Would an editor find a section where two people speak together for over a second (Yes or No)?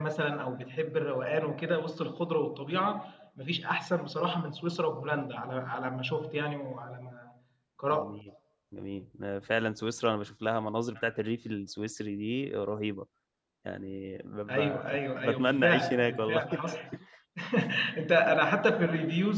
Yes